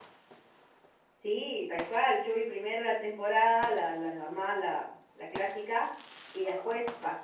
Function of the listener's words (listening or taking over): listening